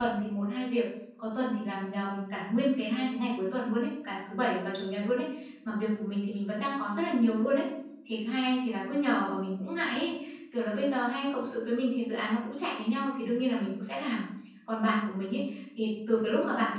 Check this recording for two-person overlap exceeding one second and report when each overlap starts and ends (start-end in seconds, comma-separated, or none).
none